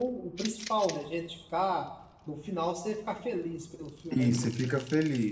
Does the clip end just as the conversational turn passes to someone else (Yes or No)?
Yes